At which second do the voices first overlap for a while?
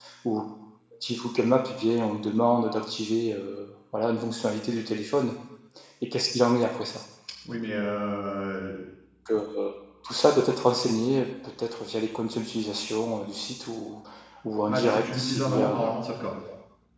15 s

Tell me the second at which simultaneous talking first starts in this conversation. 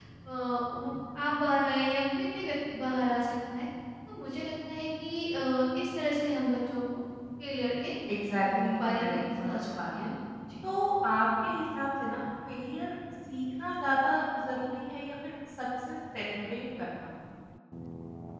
8 s

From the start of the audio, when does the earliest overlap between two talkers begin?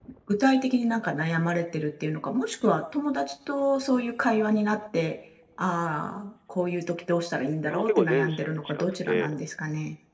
8 s

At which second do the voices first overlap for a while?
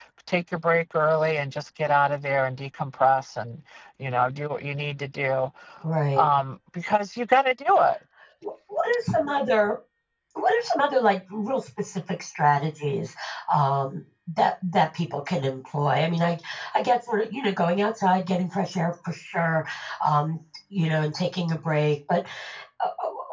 none

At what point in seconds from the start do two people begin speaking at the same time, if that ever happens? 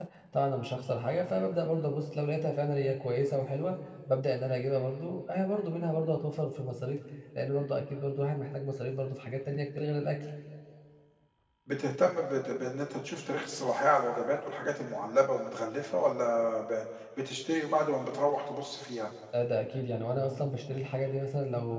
none

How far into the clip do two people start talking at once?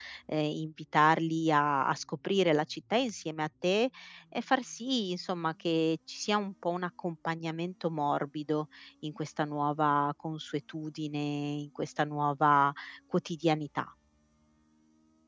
none

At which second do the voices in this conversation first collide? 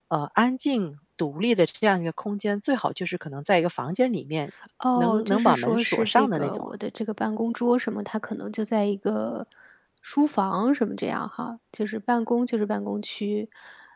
5 s

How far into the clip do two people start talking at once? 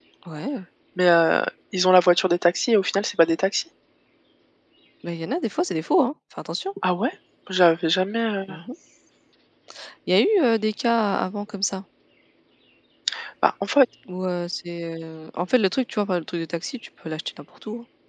none

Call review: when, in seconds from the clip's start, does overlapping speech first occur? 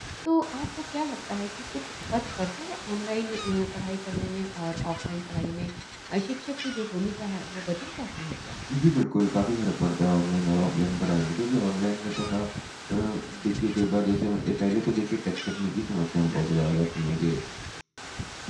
none

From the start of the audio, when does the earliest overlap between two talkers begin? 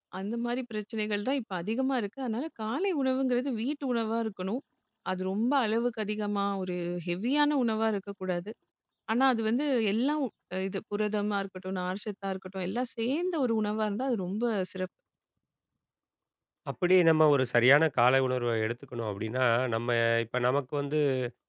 none

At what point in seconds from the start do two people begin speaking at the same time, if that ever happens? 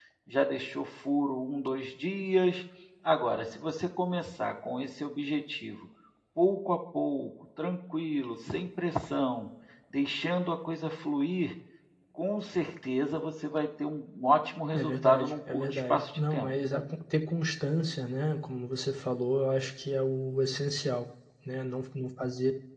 15 s

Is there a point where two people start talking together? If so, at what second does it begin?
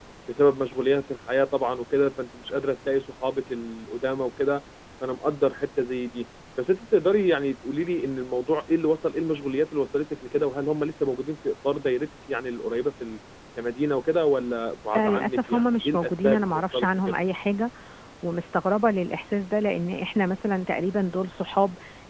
15 s

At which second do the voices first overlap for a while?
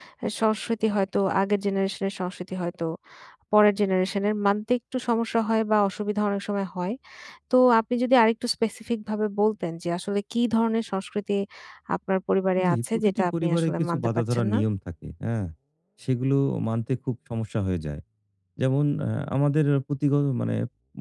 13 s

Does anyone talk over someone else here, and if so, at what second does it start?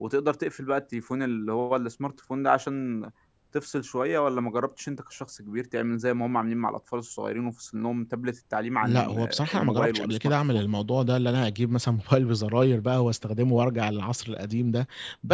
9 s

